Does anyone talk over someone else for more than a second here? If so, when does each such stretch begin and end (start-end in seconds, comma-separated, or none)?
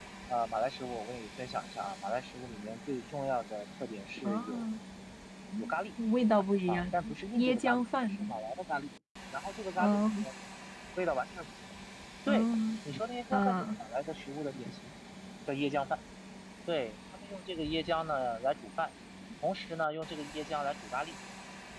6.7-8.3